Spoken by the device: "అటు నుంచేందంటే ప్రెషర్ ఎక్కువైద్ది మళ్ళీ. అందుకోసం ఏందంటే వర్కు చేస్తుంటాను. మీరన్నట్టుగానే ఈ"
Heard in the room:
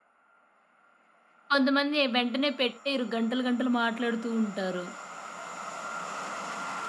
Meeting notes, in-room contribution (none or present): present